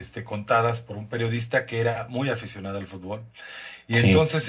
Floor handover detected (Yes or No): No